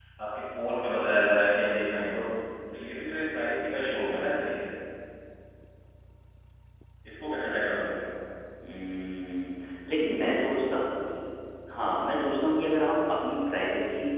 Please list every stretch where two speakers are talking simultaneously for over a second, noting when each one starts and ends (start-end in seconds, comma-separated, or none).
none